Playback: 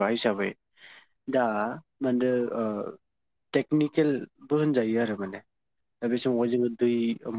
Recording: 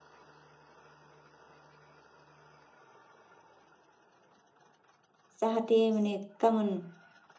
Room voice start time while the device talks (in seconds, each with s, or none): 5.4 s